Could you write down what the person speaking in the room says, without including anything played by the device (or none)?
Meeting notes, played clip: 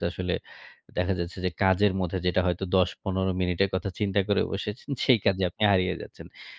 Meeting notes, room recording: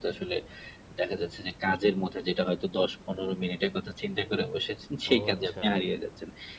ও আচ্ছা।